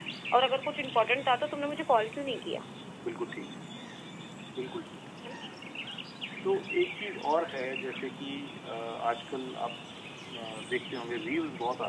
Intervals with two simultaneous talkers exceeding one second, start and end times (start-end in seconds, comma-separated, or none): none